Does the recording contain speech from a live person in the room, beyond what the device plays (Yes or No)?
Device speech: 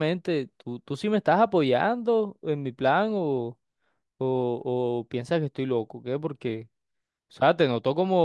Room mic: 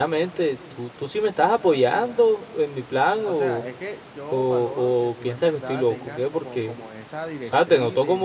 Yes